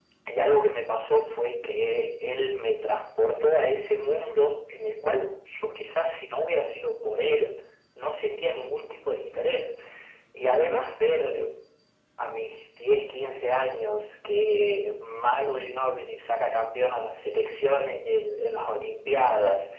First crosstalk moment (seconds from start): none

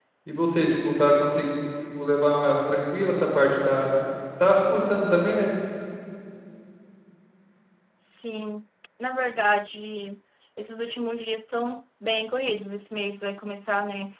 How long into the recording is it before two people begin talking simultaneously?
none

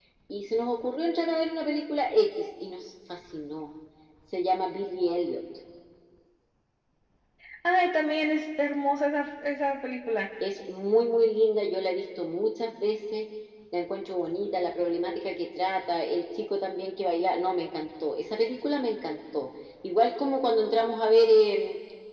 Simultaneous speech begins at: none

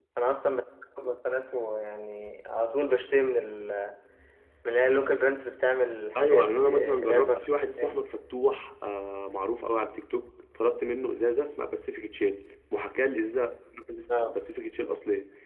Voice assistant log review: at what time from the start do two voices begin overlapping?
6.2 s

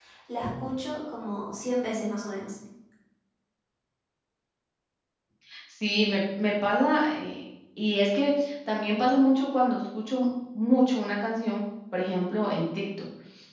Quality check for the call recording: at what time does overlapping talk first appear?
none

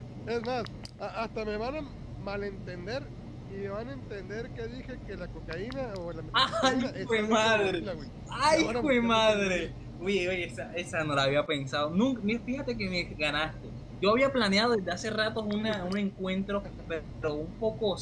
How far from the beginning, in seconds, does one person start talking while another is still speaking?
6.4 s

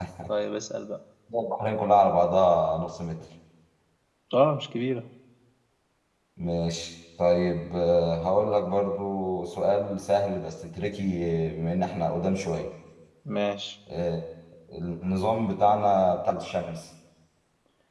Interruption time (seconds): none

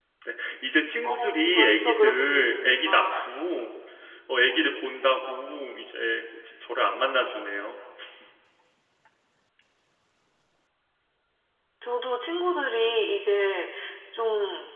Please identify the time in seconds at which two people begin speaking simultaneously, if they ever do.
1.0 s

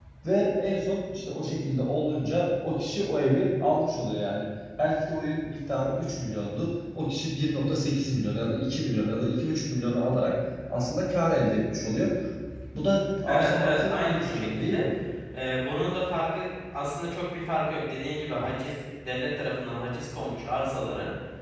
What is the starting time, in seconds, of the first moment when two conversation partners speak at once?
13.3 s

